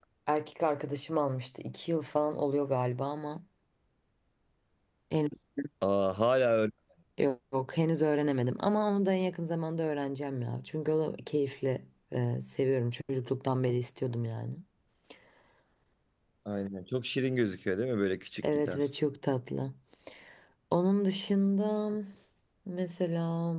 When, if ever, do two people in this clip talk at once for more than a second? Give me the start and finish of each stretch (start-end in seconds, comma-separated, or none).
none